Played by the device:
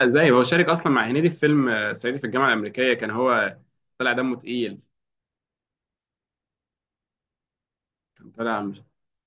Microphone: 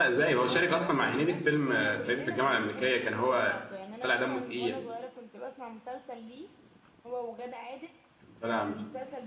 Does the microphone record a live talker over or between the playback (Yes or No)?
Yes